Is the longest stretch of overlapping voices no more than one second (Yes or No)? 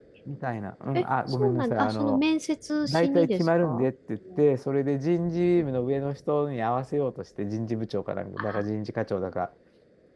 No